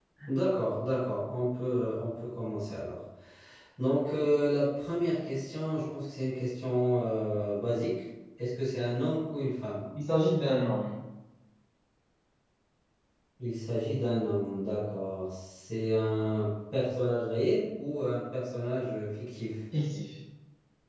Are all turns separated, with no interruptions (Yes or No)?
Yes